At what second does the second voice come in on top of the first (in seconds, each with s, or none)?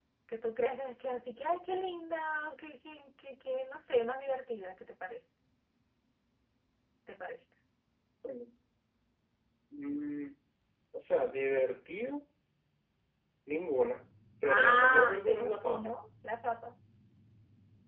14.4 s